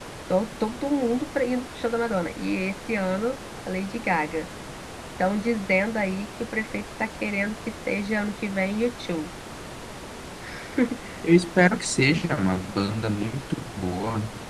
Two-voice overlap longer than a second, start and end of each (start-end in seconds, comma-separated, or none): none